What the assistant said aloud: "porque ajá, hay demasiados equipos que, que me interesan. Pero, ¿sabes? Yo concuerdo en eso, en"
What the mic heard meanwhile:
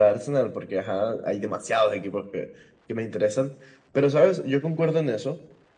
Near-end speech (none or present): none